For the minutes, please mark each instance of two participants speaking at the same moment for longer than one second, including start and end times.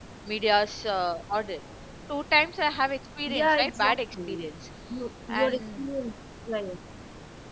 3.3-4.5

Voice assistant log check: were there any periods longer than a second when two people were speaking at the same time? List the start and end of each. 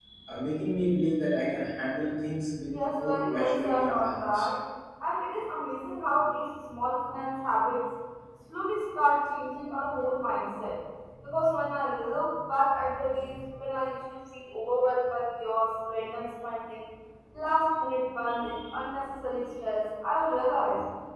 2.7-4.4

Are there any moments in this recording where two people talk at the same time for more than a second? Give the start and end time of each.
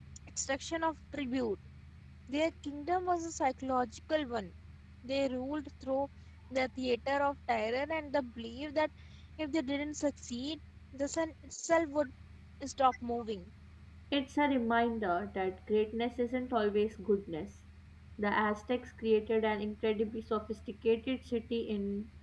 none

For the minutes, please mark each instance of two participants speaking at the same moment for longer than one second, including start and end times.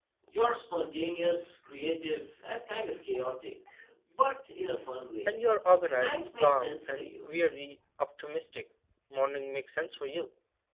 5.9-7.3

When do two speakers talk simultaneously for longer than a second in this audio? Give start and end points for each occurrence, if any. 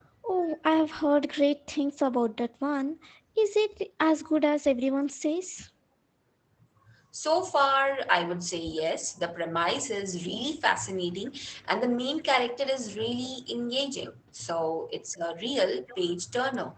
none

